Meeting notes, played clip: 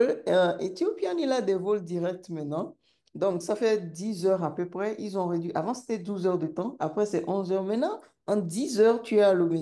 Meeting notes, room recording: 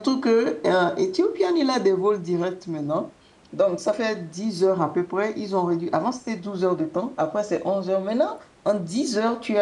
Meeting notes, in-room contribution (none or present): none